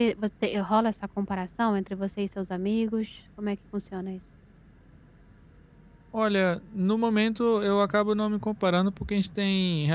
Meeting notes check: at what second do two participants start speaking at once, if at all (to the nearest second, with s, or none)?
none